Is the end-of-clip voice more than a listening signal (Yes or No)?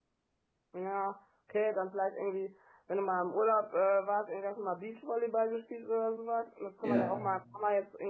No